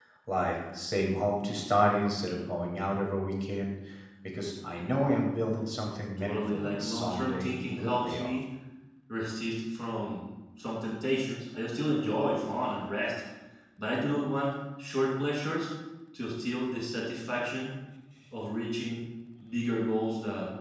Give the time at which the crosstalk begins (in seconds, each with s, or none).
6.2 s